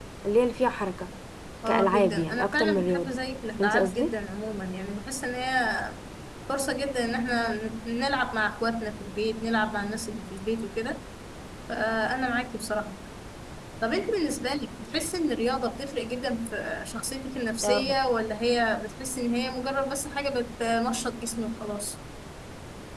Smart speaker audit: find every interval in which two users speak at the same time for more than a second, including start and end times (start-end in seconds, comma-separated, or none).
1.7-3.1